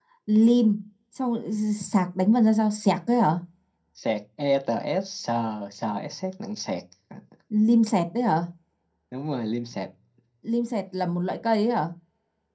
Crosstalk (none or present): none